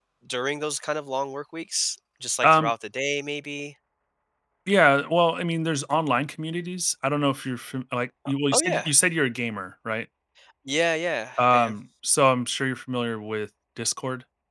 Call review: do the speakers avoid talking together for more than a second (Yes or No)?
Yes